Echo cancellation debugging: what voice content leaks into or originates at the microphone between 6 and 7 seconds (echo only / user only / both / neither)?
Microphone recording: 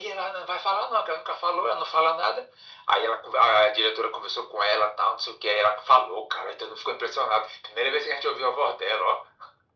echo only